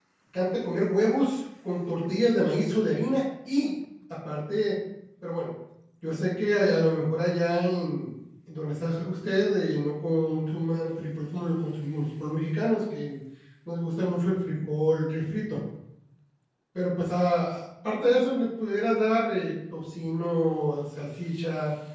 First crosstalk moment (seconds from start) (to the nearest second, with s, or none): none